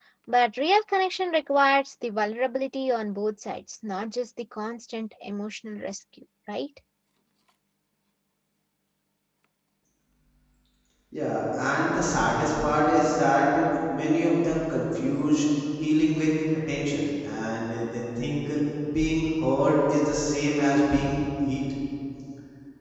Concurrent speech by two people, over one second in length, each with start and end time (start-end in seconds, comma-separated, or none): none